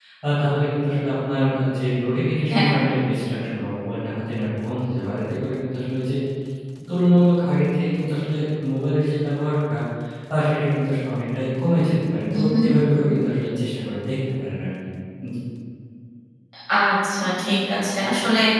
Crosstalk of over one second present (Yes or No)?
No